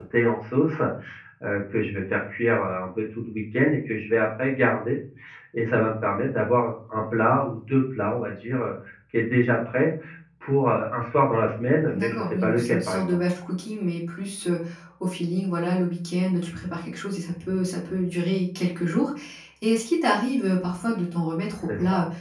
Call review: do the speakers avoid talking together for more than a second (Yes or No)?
No